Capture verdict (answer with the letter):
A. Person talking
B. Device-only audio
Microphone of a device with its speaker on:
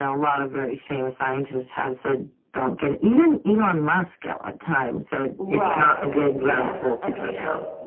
A